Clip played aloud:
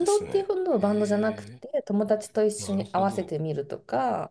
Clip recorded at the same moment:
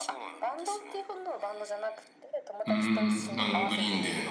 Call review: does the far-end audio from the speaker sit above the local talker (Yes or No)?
No